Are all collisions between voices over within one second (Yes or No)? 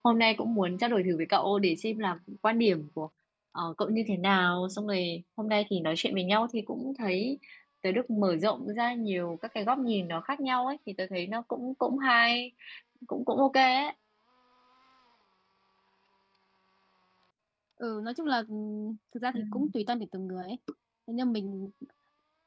Yes